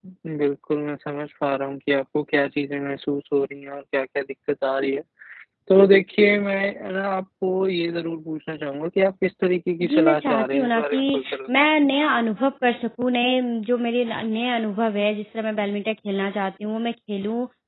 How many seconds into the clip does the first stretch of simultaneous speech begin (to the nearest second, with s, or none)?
10 s